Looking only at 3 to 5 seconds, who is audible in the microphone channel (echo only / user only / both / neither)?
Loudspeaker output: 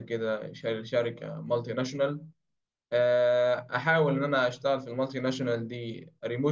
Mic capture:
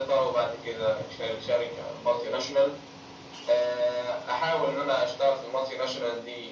echo only